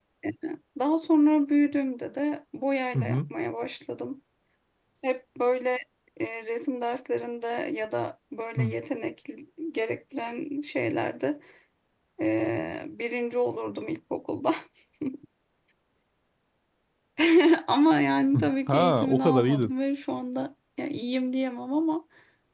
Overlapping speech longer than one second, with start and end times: 18.3-19.7

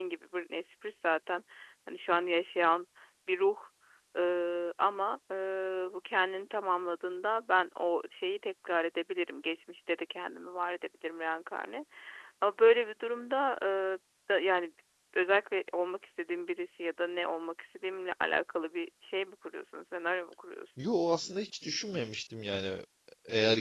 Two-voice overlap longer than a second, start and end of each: none

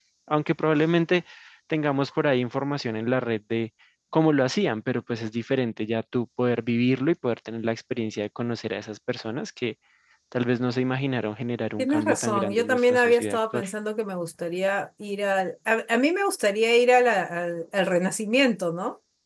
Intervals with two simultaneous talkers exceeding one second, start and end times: 11.8-13.6

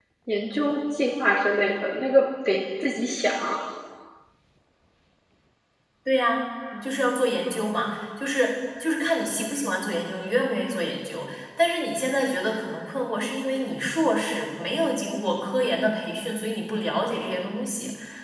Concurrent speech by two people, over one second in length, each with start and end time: none

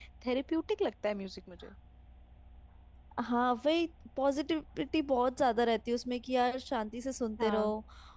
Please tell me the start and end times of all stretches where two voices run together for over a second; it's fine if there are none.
none

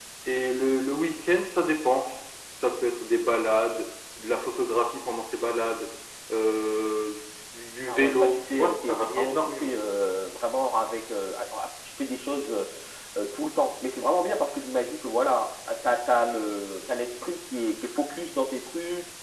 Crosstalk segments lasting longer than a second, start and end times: 7.9-9.7

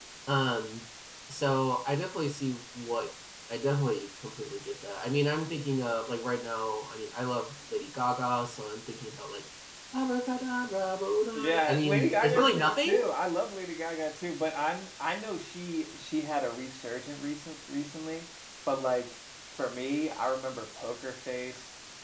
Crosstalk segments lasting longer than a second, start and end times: 11.4-13.0

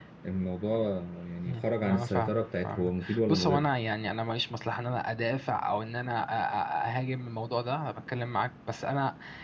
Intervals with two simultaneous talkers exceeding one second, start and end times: 1.4-3.7

